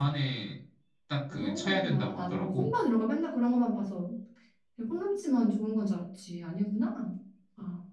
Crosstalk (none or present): present